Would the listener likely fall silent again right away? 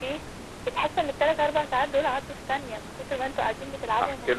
No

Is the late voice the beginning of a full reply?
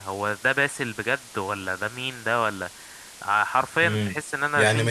Yes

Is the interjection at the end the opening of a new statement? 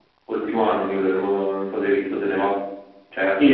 Yes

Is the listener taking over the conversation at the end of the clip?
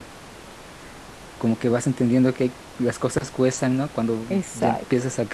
No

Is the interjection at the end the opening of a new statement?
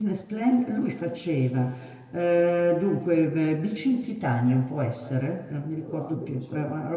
No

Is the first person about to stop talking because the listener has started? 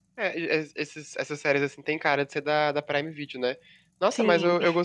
No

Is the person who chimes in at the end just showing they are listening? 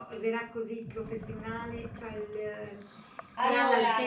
Yes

